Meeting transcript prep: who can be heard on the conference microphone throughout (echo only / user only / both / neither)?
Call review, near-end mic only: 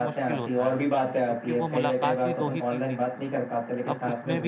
both